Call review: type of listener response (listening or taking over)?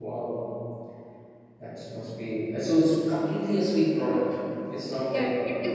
taking over